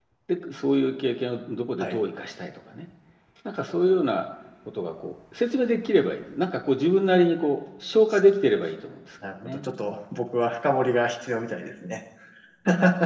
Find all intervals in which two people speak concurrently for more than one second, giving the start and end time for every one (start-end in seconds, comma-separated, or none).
none